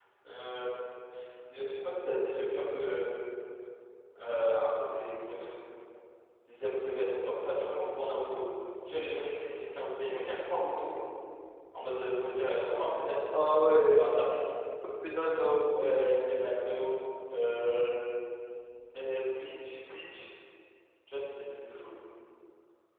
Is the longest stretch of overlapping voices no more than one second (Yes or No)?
Yes